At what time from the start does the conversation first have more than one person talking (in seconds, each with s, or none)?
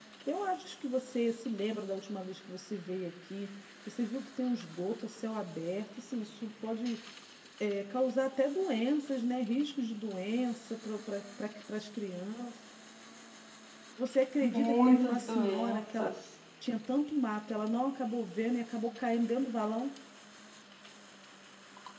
14.4 s